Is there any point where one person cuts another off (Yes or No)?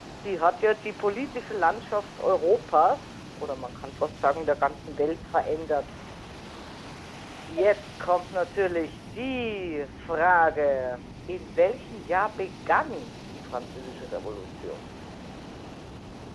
No